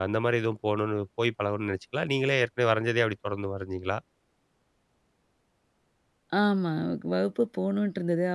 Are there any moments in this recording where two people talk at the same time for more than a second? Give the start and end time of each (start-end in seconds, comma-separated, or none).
none